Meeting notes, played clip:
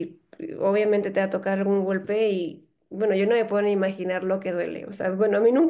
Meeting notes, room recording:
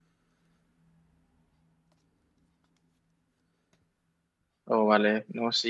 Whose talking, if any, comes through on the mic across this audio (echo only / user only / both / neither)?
user only